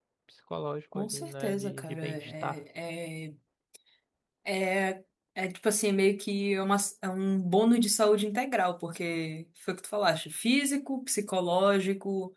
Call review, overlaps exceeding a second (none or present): present